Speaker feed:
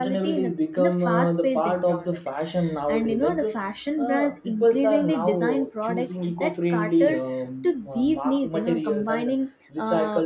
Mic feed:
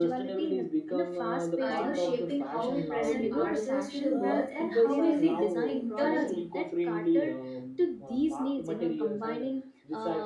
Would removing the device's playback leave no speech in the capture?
No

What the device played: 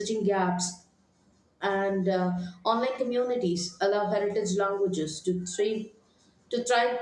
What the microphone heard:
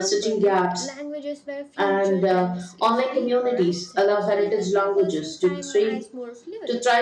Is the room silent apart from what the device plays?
No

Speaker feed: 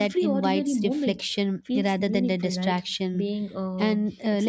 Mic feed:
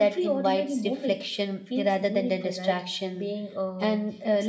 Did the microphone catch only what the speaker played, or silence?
Yes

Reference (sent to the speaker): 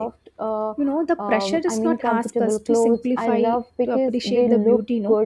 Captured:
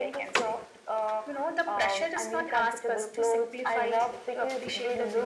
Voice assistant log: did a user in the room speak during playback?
No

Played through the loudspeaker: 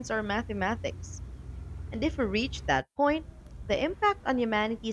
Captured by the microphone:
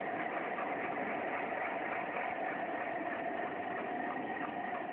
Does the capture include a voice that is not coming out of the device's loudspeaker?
No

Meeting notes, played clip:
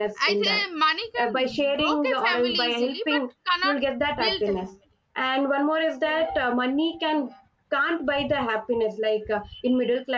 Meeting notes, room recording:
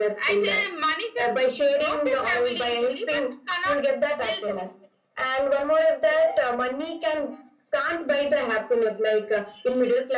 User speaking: No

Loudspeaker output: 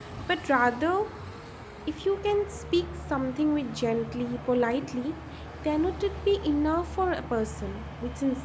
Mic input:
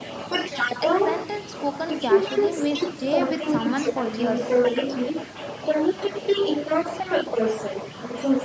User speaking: Yes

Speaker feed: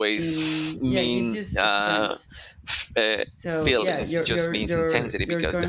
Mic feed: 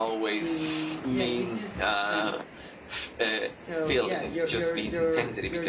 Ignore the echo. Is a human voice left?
No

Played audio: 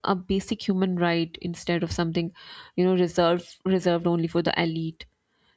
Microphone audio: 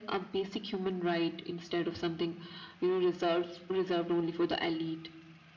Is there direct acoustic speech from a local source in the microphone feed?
No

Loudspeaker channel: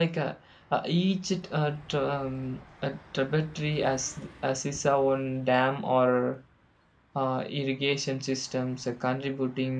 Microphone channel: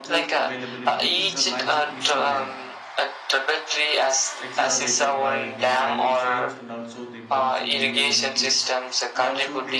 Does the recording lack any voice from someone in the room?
No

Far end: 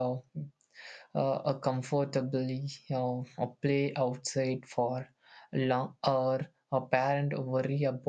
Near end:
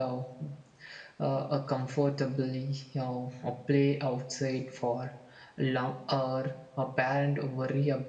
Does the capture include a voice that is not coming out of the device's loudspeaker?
No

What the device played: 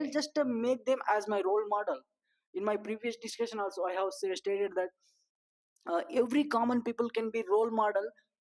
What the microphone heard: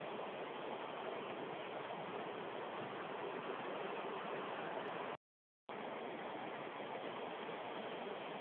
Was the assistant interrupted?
No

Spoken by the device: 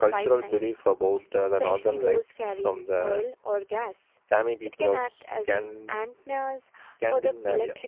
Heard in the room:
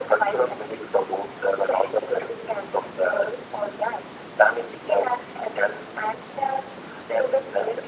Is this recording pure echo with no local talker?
Yes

